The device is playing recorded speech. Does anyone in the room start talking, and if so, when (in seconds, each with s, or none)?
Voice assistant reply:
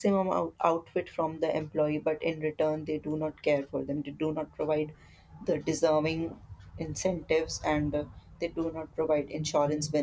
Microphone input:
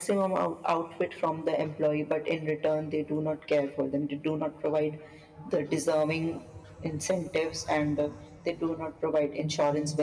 none